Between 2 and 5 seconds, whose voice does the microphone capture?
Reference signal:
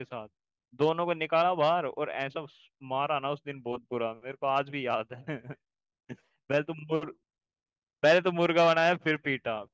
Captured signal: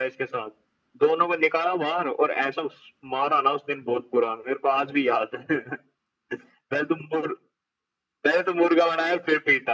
echo only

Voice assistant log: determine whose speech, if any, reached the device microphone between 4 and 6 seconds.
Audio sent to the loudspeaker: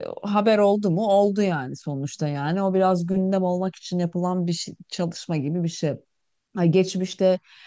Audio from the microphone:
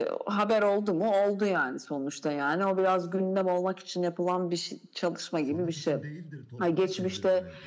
both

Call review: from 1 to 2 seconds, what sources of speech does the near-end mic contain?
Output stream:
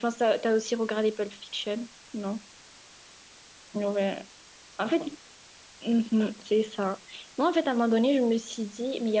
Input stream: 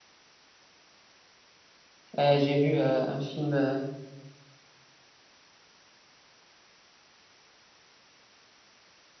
neither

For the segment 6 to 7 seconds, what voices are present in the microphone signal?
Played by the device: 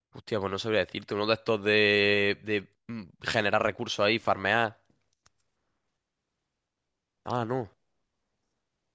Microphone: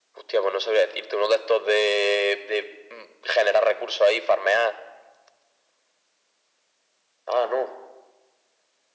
neither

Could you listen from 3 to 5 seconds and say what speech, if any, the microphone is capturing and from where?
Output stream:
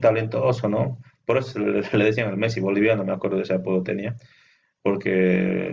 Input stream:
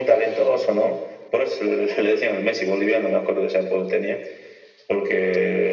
echo only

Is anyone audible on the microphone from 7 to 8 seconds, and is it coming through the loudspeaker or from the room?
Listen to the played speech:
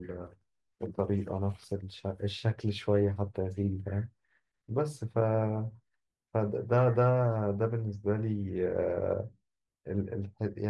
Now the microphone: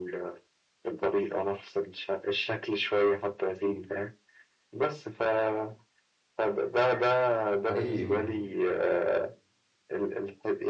both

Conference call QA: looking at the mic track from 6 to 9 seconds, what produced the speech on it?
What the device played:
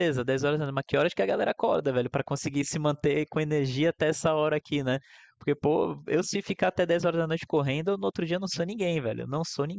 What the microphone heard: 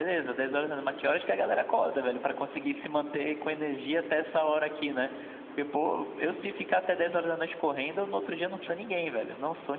echo only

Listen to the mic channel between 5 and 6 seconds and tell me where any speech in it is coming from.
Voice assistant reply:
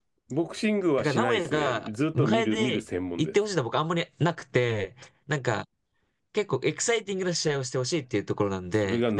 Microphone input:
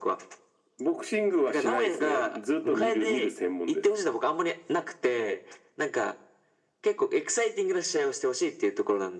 echo only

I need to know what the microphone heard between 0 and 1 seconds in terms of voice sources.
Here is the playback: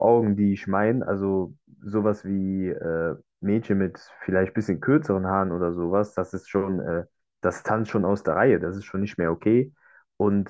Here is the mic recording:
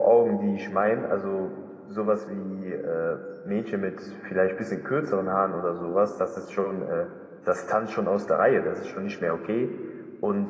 echo only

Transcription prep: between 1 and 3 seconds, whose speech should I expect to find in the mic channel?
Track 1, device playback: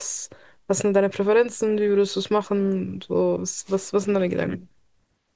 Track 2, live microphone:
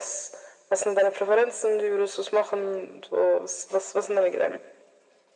echo only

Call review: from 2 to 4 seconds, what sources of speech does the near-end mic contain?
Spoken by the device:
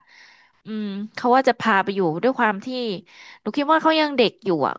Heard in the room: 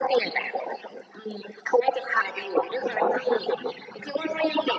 echo only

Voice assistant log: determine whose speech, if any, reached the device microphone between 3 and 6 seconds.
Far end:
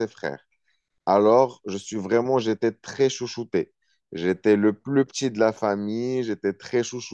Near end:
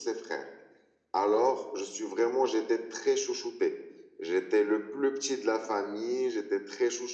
echo only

